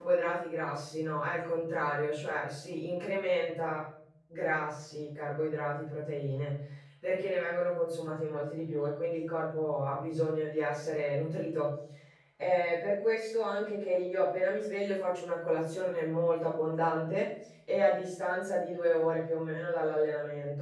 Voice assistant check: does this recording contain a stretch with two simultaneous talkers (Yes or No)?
No